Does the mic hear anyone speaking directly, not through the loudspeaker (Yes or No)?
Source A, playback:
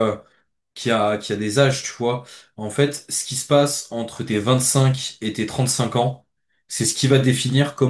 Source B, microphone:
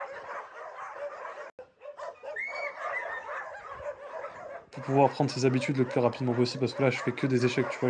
Yes